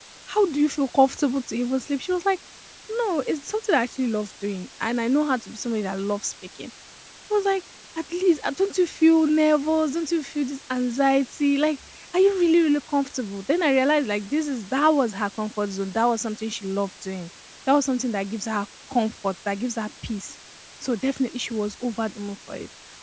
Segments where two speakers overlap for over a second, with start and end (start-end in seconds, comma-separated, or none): none